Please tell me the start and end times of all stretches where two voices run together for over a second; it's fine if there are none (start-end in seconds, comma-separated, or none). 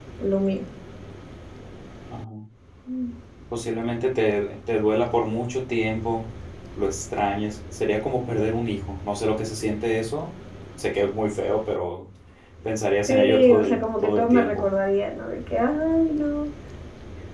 13.1-14.7